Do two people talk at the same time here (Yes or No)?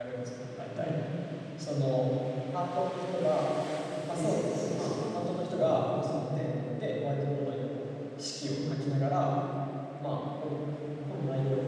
Yes